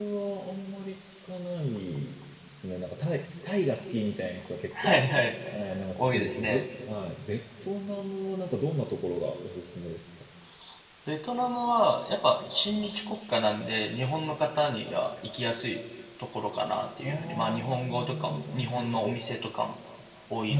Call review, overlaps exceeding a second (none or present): present